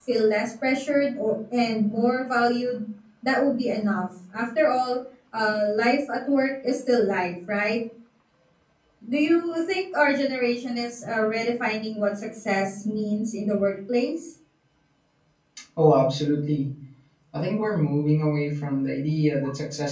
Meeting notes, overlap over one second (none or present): none